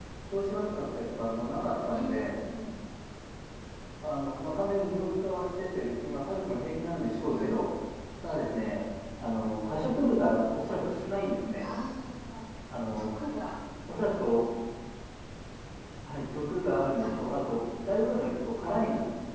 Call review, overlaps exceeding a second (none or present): none